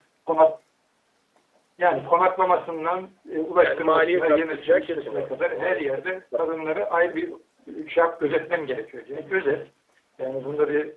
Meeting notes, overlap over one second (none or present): present